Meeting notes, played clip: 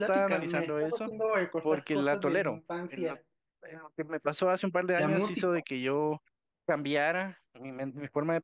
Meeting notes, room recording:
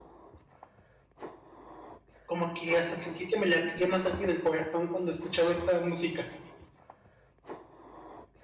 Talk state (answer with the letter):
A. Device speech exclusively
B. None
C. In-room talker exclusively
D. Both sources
C